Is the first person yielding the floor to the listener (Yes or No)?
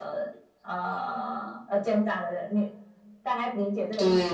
Yes